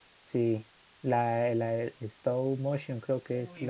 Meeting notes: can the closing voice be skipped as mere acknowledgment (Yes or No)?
No